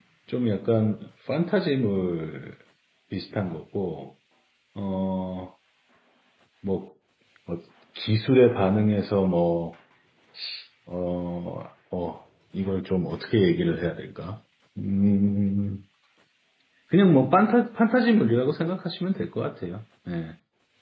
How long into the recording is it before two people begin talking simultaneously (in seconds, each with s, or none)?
none